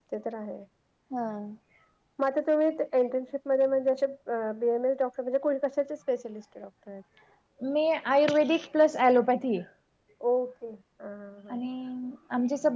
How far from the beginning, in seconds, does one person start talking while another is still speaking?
none

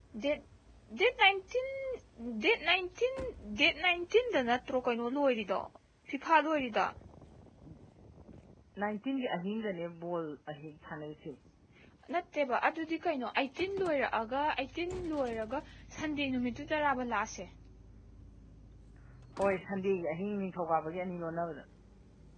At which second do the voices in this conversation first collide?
none

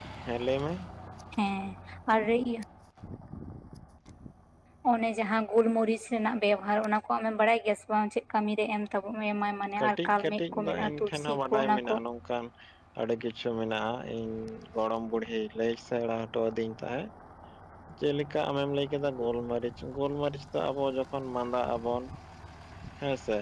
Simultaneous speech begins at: 9.8 s

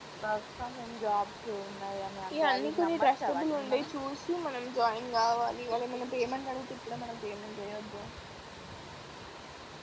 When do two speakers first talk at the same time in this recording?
2.3 s

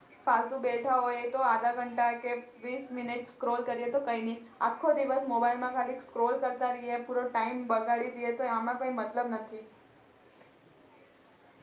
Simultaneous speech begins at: none

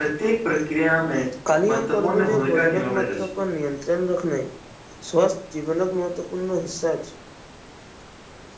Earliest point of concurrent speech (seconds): 1.7 s

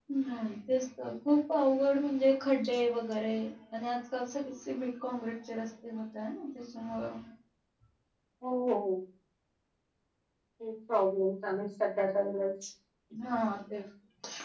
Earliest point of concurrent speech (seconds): none

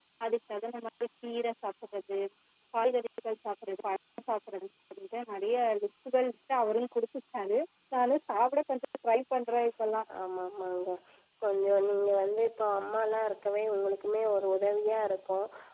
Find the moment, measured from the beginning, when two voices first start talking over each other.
none

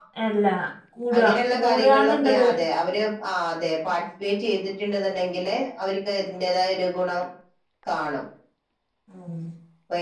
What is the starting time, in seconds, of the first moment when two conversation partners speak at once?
1.2 s

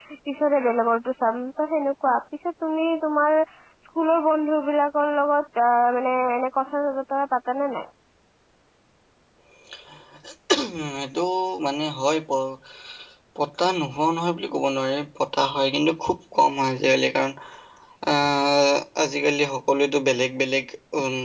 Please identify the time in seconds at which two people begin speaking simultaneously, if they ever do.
none

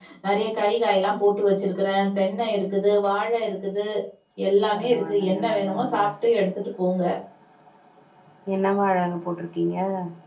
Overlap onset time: 4.7 s

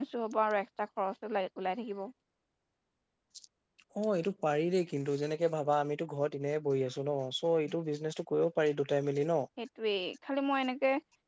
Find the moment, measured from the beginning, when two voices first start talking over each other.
none

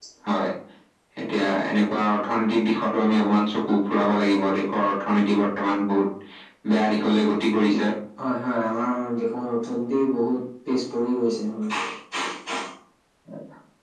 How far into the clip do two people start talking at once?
none

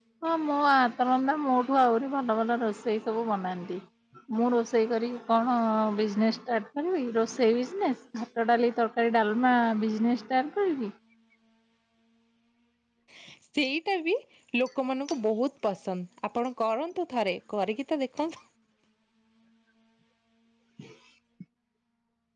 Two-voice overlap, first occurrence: none

